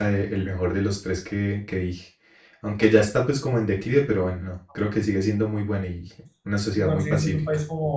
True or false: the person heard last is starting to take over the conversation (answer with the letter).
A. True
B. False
A